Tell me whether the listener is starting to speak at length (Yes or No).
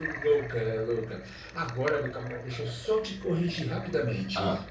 No